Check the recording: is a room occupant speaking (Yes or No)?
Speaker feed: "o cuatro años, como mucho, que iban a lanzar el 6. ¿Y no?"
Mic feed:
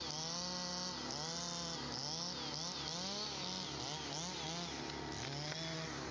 No